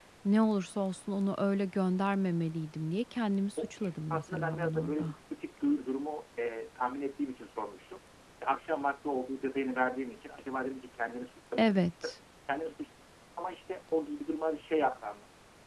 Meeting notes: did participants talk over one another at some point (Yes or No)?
Yes